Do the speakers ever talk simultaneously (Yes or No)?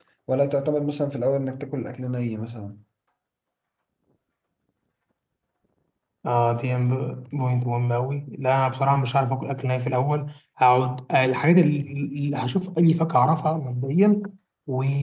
No